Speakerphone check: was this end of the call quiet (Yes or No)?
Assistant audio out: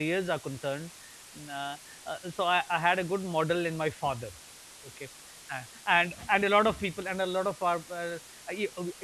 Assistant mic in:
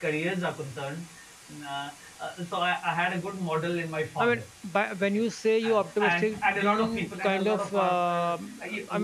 No